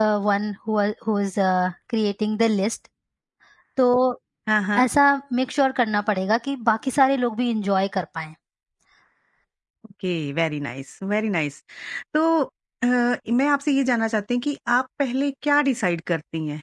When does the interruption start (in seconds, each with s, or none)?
none